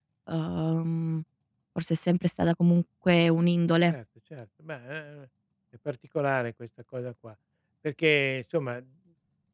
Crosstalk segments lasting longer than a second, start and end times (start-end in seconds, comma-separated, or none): none